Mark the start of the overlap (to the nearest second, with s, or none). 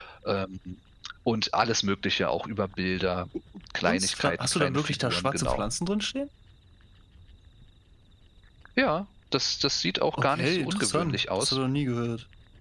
4 s